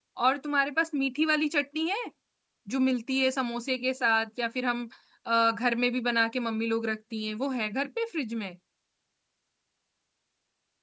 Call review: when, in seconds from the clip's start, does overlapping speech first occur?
none

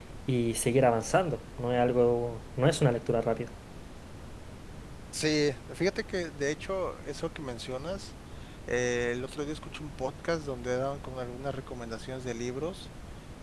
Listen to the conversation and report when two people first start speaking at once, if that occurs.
none

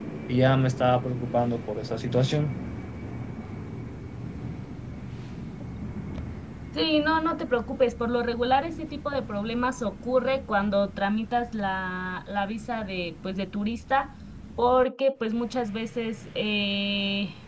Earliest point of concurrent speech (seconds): none

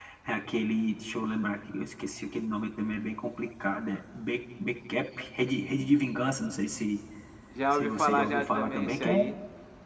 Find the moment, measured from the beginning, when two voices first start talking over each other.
7.7 s

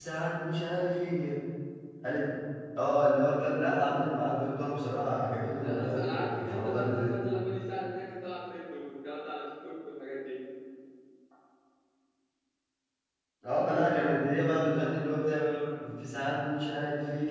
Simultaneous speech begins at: 5.2 s

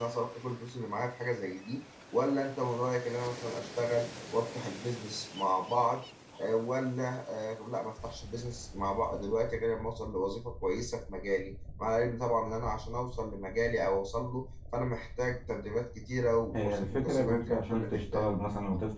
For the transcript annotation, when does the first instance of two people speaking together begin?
16.5 s

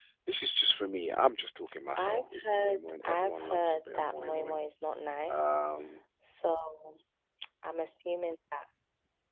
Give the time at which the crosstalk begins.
2.0 s

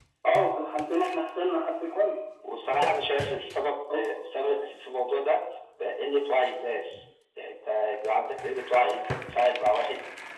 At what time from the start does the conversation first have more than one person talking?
none

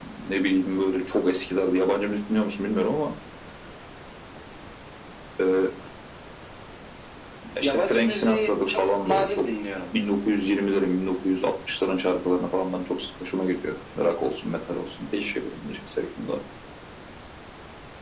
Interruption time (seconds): 7.6 s

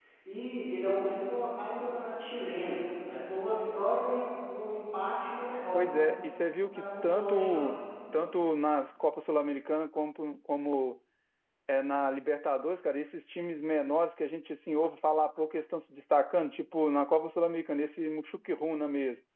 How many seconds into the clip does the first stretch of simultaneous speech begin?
5.7 s

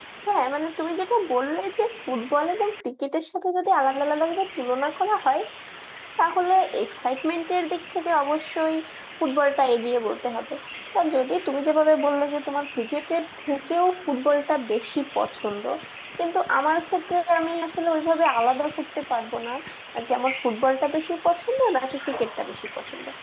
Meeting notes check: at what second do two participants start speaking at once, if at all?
none

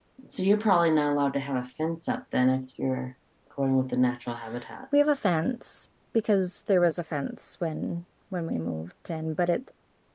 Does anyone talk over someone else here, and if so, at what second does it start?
none

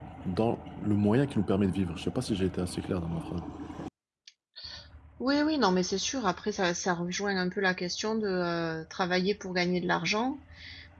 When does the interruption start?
none

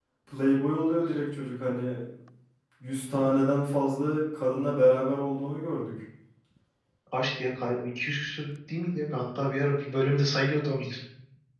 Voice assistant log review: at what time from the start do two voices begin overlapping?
none

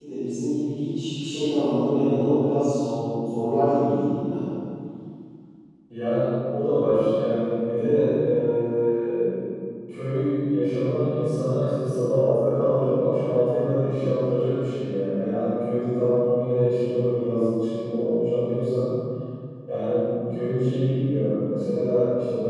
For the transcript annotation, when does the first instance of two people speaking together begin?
none

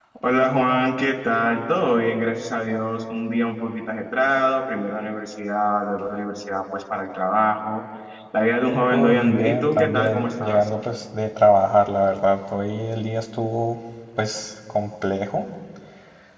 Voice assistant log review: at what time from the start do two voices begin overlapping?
8.9 s

